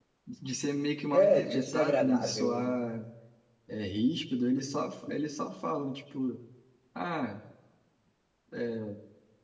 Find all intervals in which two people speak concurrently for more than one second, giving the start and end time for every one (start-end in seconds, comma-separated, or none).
1.1-2.7